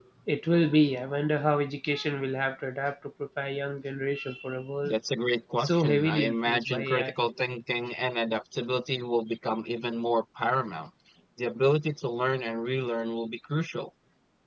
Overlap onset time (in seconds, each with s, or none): 5.6 s